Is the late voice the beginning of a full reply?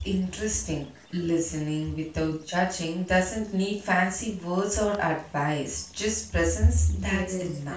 Yes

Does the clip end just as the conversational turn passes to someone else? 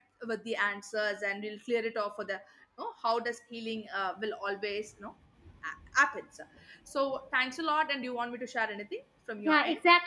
Yes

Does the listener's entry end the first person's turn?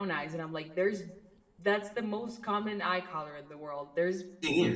No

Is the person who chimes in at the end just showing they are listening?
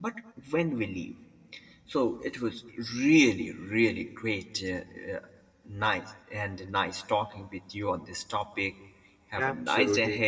No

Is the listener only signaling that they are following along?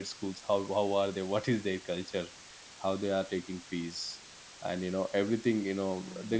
Yes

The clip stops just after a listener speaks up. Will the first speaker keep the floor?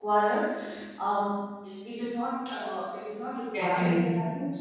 Yes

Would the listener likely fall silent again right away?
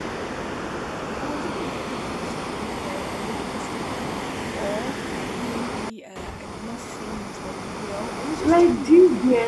No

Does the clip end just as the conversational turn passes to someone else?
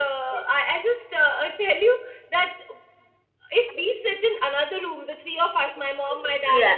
No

